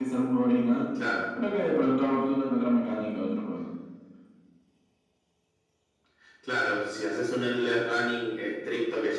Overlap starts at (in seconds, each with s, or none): none